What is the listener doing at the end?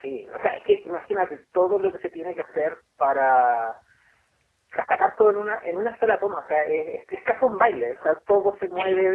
listening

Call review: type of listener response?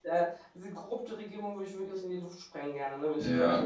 taking over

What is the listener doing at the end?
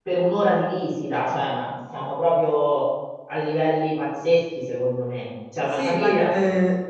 taking over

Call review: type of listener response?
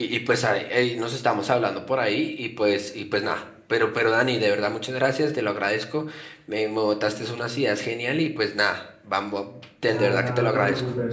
taking over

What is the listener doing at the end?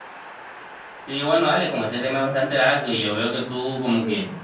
listening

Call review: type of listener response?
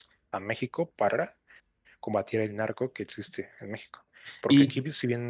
listening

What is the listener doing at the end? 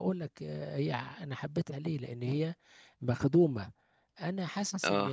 listening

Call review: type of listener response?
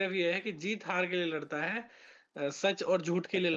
listening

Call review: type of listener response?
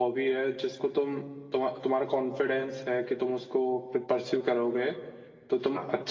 listening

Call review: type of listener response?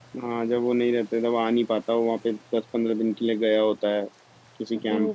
taking over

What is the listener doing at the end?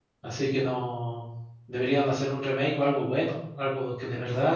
taking over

